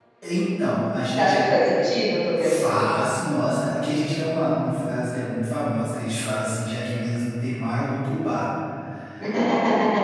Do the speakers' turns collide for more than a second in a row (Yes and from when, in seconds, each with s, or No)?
No